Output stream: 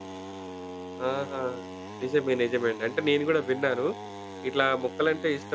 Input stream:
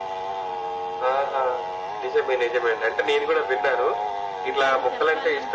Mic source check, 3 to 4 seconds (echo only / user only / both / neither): echo only